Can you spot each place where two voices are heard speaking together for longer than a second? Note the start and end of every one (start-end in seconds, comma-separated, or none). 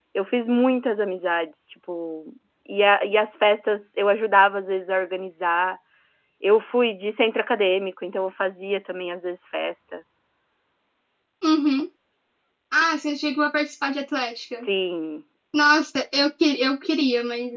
none